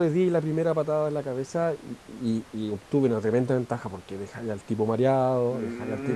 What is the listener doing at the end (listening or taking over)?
taking over